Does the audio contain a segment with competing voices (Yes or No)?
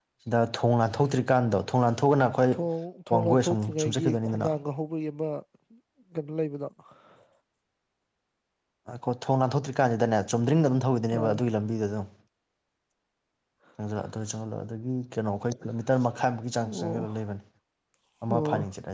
Yes